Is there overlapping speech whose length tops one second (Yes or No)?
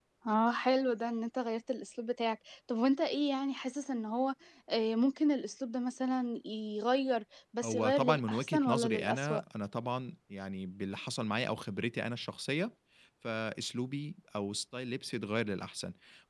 Yes